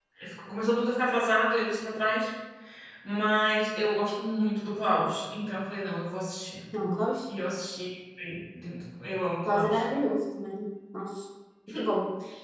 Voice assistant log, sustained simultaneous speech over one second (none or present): none